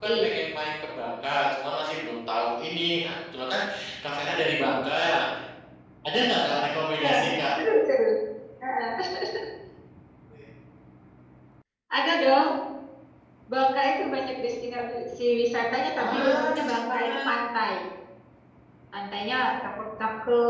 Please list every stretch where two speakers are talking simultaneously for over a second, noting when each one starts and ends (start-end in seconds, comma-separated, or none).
16.0-17.2